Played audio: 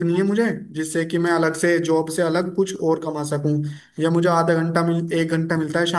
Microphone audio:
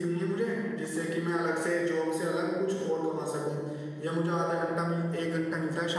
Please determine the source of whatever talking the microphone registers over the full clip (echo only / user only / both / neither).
echo only